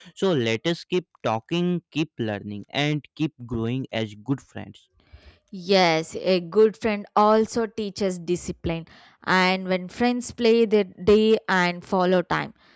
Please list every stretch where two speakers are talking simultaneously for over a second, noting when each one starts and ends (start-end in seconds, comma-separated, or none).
none